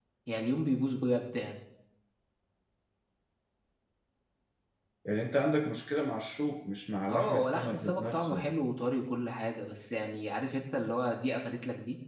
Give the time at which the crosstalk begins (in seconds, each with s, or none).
7.1 s